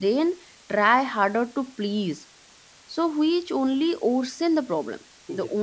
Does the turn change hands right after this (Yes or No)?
No